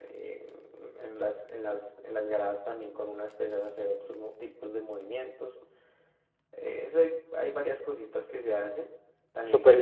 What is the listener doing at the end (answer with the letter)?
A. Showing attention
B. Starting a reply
B